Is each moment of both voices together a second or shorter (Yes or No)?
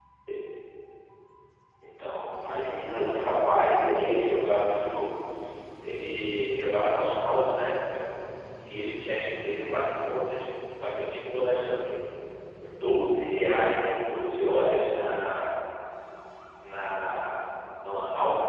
No